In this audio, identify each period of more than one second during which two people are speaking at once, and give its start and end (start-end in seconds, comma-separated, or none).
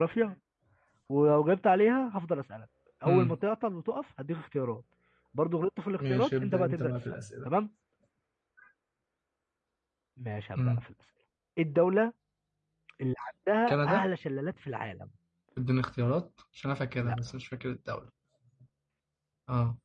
6.0-7.5